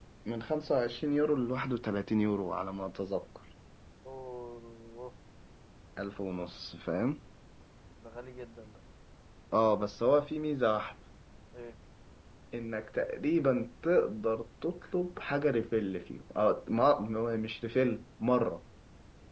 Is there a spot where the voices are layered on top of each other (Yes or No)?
No